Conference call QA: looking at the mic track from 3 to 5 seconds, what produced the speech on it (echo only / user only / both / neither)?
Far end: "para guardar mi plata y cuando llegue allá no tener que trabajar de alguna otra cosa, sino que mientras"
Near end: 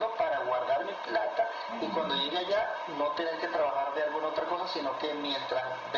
echo only